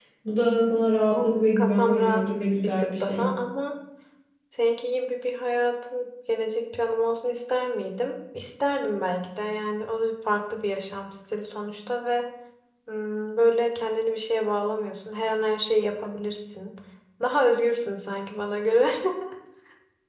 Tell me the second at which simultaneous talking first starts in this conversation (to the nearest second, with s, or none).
1 s